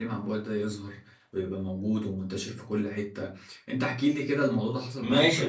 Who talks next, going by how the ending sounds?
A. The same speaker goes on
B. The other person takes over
B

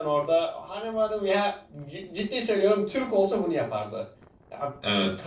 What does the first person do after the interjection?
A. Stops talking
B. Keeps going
B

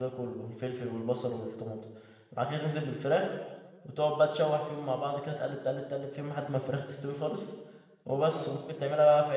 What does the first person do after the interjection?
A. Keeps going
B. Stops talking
A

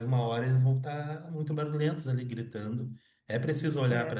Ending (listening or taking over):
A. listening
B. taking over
A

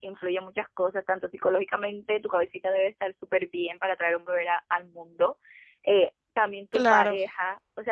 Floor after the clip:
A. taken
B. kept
B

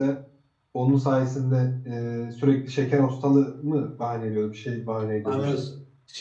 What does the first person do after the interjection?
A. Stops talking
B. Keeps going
A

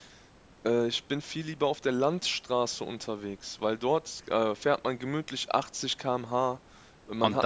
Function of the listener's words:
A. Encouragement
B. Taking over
A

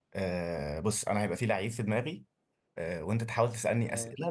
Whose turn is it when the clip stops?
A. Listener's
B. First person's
B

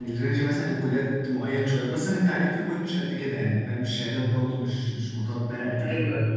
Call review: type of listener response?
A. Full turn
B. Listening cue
A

